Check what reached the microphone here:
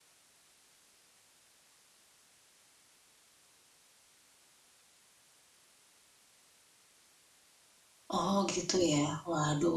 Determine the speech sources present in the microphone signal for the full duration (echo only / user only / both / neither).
user only